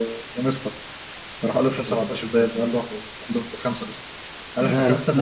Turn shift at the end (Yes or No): No